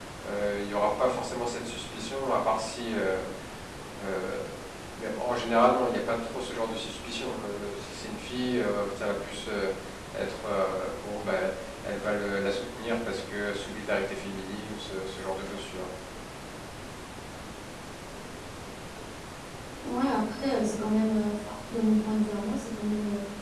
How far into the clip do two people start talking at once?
none

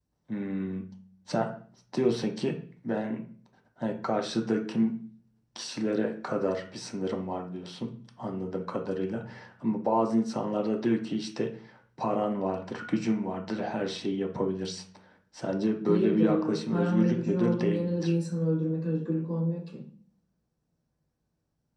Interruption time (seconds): 15.9 s

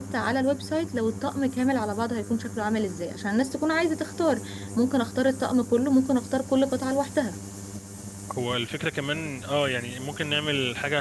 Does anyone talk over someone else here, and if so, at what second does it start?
none

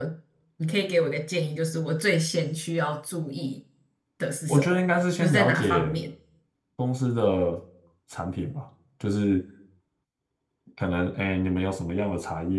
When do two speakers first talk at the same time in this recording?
4.5 s

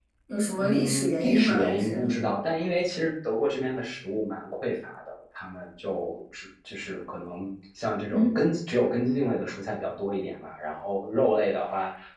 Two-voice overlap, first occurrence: 0.6 s

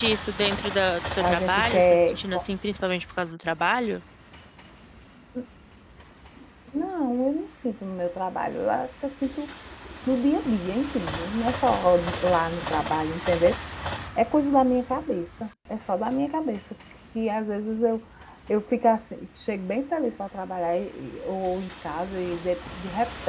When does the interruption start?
1.2 s

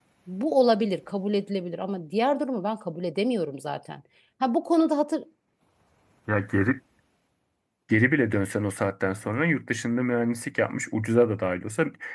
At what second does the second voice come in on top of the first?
none

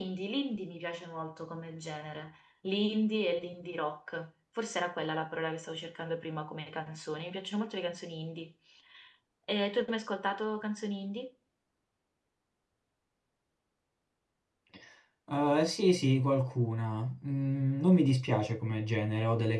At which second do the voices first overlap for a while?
none

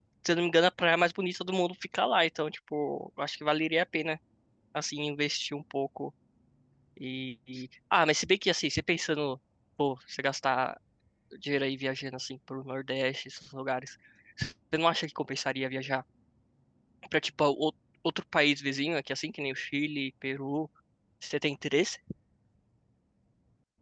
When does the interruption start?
none

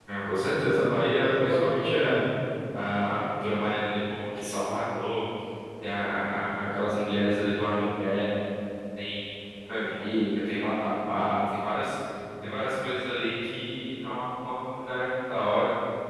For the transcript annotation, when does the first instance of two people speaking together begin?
0.6 s

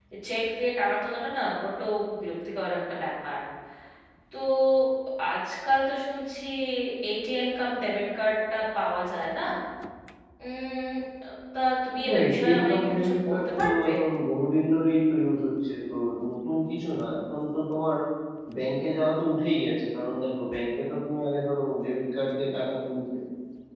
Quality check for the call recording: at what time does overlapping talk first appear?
12.1 s

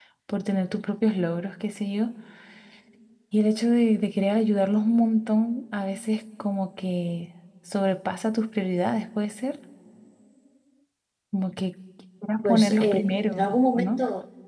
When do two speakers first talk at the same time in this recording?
12.4 s

